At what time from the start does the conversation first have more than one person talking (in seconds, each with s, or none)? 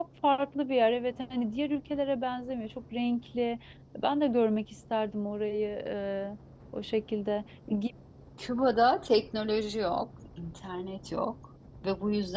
none